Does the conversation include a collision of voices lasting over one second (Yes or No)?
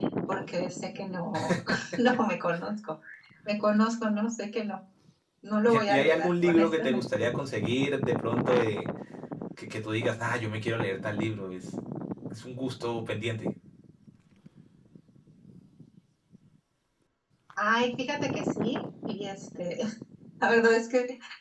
Yes